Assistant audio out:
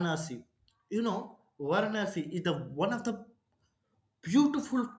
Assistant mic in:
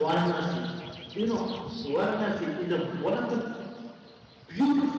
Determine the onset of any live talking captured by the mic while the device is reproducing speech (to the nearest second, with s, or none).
none